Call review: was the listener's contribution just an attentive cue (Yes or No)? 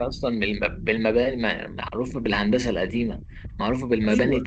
Yes